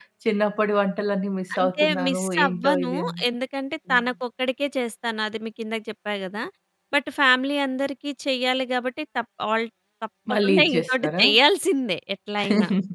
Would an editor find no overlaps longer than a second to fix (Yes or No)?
No